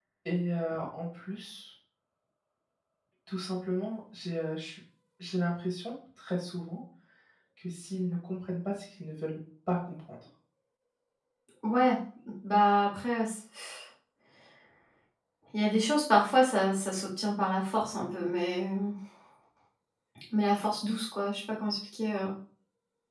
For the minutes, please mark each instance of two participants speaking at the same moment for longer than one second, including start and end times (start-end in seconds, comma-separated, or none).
none